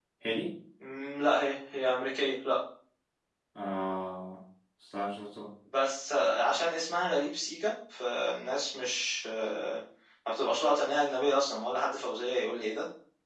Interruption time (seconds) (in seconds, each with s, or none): none